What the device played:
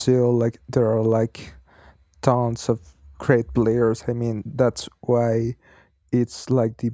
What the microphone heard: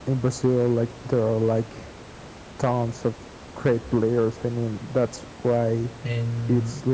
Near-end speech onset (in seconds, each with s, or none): 6.0 s